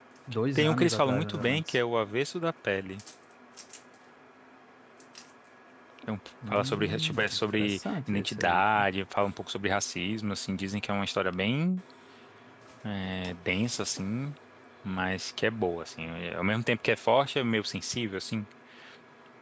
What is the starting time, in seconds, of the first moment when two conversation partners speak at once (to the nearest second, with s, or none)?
1 s